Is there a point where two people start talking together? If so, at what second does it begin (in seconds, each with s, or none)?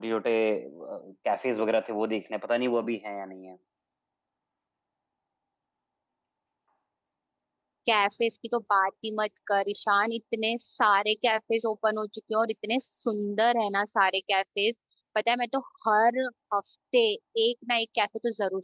none